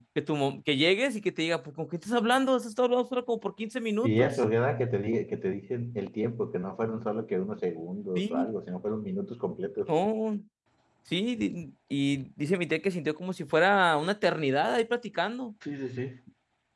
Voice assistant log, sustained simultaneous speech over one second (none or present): none